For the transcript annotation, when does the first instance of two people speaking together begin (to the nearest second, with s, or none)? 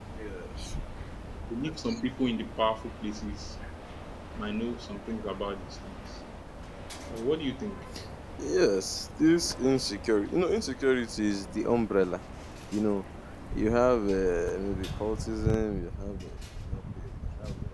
none